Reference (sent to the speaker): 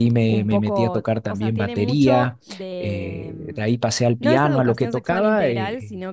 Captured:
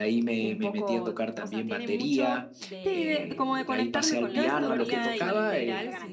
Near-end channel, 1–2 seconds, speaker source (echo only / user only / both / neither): echo only